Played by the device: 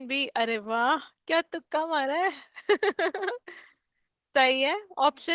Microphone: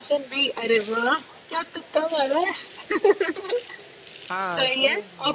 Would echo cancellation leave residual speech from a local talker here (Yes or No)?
Yes